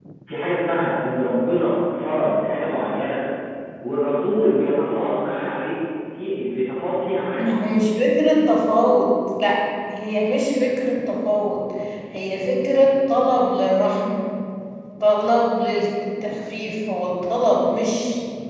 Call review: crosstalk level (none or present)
none